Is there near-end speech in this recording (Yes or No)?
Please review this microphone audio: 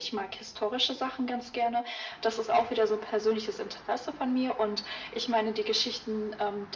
No